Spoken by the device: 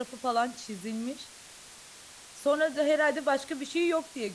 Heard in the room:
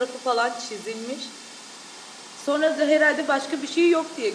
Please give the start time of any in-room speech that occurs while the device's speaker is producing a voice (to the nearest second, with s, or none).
none